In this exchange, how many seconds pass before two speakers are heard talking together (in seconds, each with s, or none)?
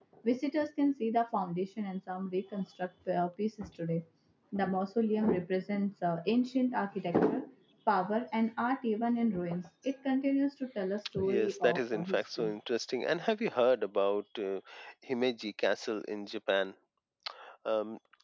11.2 s